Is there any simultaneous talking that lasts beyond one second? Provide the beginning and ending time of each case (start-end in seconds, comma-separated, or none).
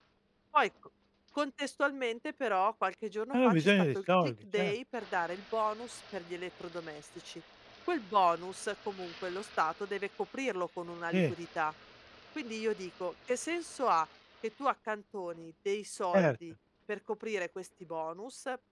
3.3-4.7